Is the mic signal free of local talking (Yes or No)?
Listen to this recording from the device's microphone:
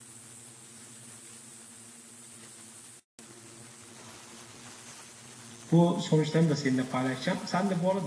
No